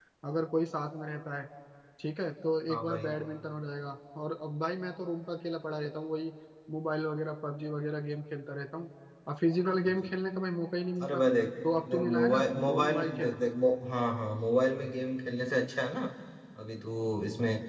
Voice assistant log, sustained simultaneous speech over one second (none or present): present